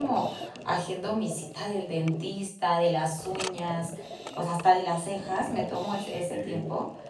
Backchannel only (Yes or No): Yes